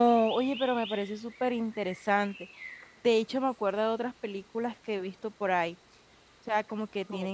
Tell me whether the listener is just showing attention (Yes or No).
Yes